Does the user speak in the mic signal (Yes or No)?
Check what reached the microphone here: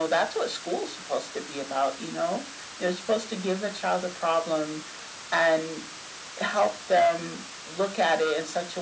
No